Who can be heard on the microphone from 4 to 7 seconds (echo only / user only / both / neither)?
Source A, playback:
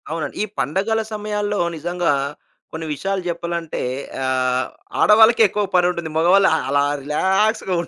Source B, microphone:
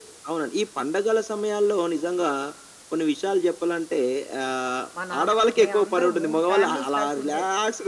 both